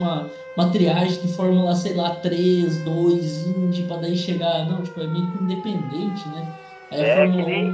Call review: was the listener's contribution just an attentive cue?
No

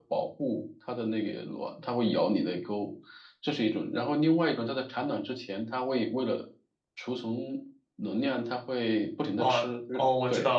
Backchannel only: No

